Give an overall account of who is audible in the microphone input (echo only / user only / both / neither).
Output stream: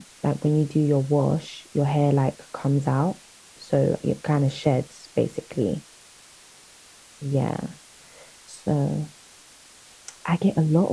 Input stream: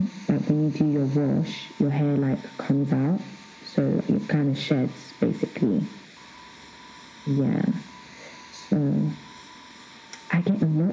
echo only